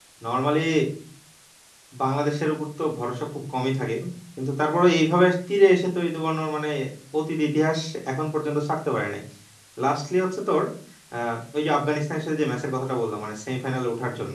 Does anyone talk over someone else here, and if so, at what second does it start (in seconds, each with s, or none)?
none